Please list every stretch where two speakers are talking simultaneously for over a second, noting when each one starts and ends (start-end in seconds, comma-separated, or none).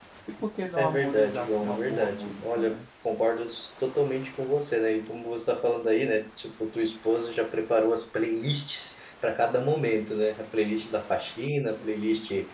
0.8-2.8